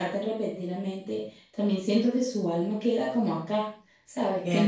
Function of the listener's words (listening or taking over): taking over